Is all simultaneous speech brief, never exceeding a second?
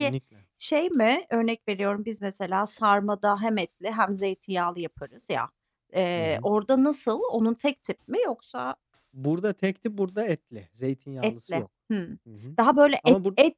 Yes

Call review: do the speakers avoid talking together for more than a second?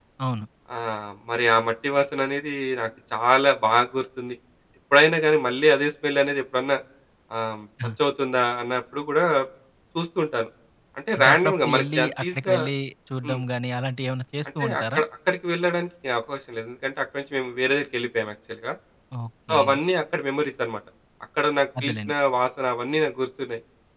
No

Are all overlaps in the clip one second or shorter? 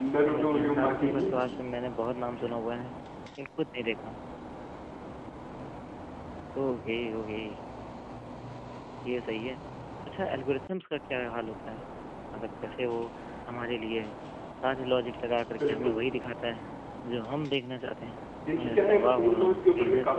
No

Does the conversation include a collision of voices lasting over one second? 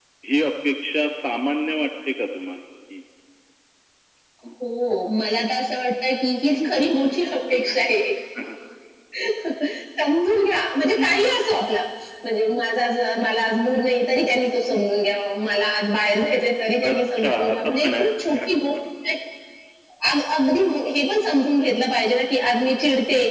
Yes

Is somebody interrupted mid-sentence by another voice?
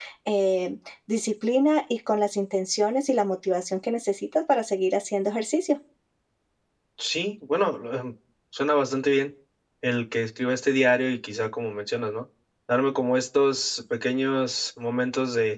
No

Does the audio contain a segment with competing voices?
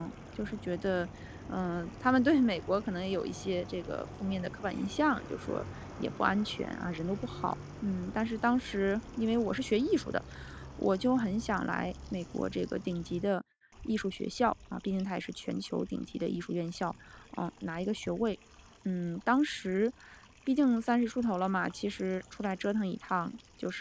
No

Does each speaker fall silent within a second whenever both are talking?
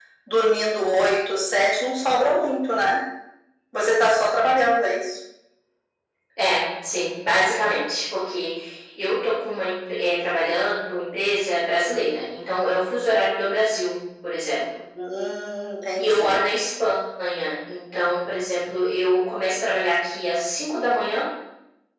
Yes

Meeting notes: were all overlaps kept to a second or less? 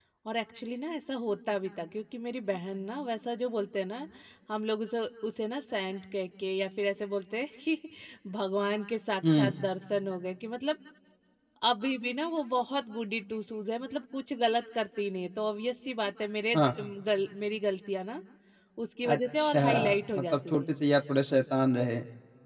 No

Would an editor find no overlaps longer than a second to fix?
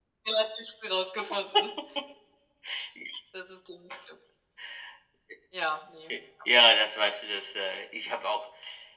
Yes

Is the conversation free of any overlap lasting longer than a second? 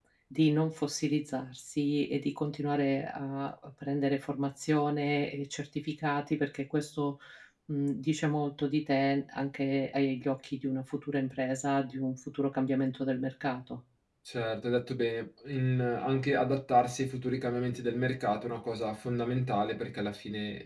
Yes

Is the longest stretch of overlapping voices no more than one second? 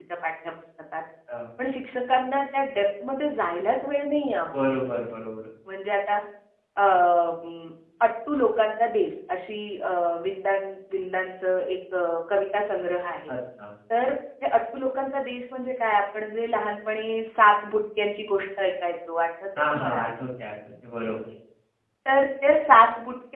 Yes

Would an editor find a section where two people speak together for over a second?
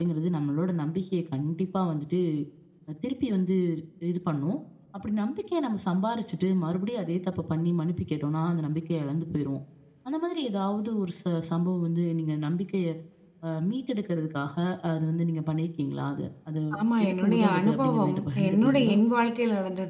Yes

